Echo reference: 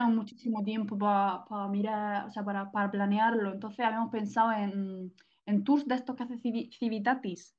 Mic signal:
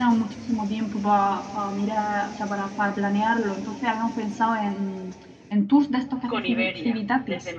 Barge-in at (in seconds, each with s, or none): 6.3 s